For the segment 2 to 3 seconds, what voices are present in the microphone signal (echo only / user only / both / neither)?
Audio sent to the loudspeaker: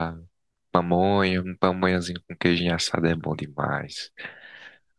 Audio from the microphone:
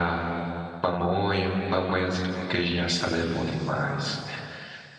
echo only